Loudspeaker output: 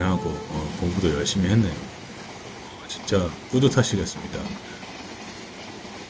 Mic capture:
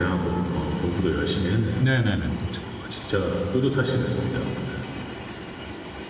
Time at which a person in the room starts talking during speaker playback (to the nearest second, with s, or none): 2 s